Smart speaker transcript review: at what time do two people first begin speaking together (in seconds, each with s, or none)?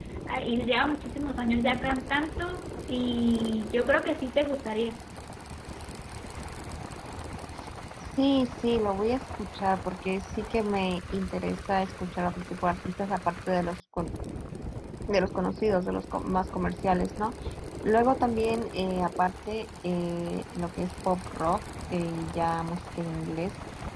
none